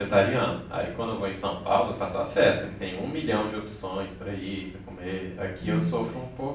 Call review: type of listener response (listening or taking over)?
listening